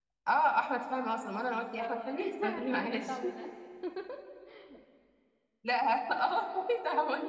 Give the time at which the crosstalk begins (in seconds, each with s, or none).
1.8 s